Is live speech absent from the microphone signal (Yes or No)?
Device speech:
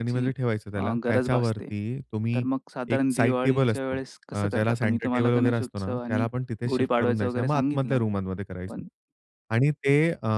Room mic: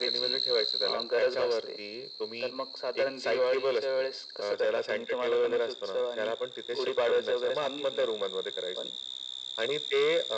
Yes